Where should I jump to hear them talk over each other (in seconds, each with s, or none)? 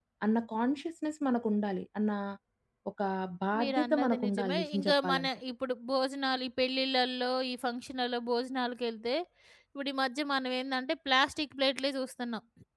3.6 s